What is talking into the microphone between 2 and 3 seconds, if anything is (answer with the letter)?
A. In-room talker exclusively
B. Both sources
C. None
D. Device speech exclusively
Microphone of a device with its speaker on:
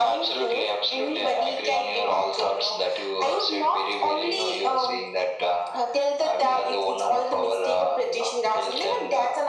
D